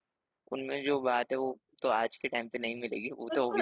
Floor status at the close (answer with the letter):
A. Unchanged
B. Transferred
B